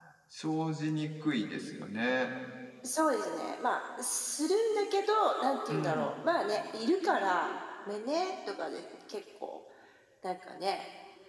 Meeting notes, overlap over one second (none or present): none